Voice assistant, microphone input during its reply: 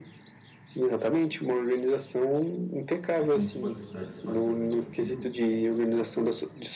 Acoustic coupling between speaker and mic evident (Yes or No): Yes